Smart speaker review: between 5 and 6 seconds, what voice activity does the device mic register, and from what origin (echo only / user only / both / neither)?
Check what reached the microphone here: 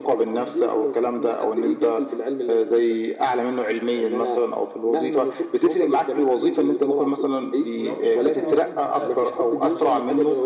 echo only